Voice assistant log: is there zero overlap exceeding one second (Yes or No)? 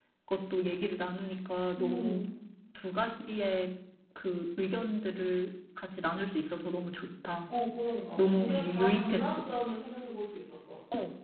No